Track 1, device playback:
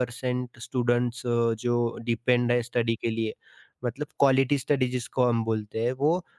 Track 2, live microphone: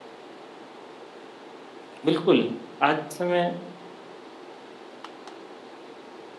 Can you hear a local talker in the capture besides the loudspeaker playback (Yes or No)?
Yes